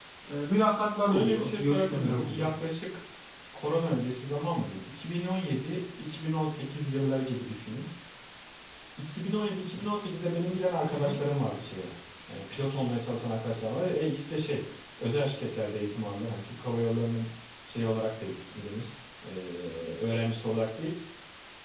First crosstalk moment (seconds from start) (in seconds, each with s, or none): 1.1 s